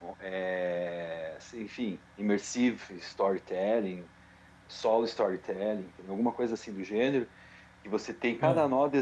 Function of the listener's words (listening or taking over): listening